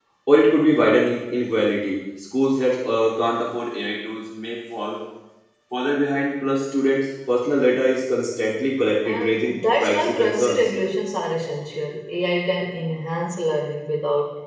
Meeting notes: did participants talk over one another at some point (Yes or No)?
Yes